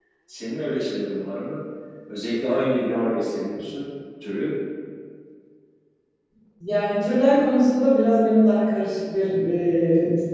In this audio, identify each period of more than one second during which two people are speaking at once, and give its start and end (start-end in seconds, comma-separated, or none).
none